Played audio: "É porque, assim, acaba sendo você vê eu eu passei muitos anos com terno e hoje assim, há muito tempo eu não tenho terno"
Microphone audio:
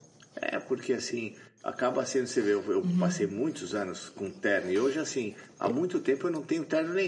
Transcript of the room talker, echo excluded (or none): Uhum.